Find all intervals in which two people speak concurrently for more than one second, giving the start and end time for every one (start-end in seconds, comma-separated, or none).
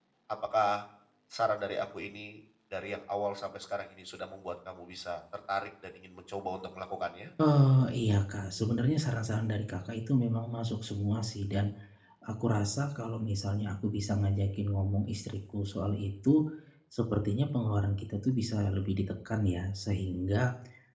none